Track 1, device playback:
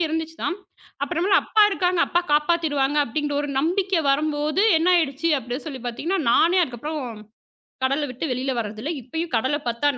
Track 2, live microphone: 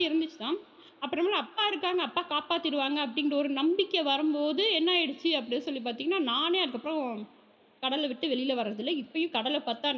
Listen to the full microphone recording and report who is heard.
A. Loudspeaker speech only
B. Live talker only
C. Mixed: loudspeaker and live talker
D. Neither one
A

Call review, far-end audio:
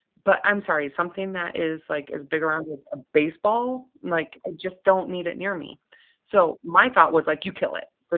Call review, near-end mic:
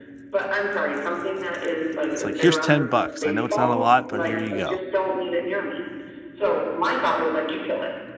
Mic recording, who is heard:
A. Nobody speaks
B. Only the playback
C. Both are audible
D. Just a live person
C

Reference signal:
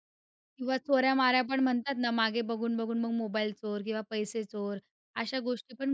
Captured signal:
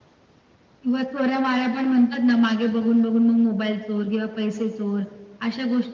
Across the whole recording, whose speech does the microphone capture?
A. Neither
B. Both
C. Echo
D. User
C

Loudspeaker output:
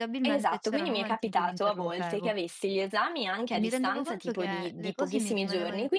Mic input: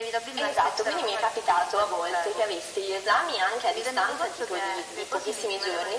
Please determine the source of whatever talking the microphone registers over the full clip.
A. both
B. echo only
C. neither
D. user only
B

